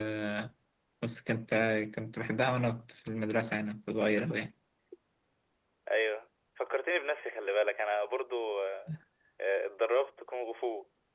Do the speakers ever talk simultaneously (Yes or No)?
No